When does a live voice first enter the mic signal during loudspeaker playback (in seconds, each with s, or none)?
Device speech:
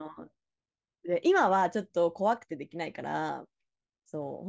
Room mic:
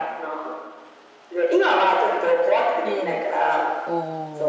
2.8 s